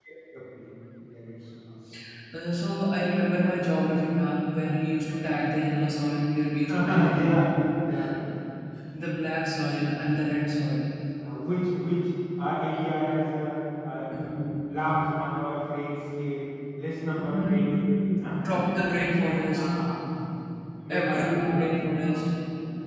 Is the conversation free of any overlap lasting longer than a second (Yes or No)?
No